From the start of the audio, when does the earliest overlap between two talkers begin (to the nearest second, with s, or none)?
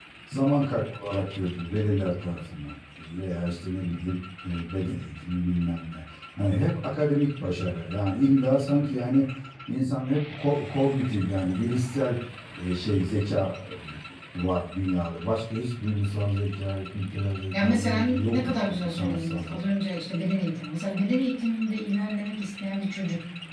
18 s